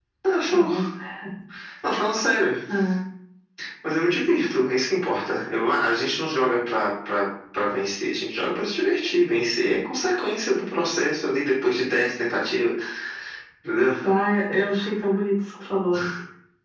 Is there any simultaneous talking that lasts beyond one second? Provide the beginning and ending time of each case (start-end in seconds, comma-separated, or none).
none